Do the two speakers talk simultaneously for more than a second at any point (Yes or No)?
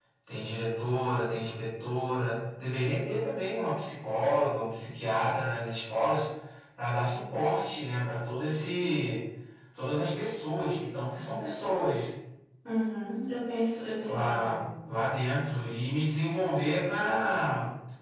No